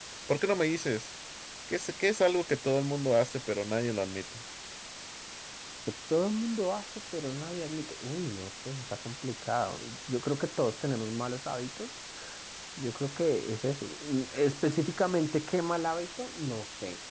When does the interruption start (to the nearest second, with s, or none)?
none